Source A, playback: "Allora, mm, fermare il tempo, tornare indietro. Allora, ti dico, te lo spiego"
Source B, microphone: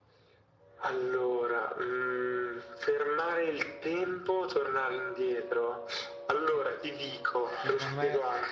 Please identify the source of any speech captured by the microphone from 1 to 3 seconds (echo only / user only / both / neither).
echo only